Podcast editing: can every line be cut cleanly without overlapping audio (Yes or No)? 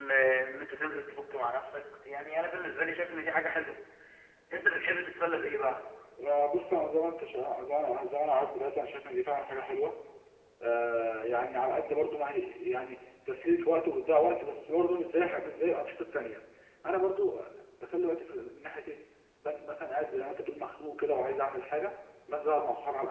Yes